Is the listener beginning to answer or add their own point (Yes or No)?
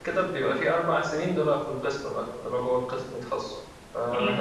No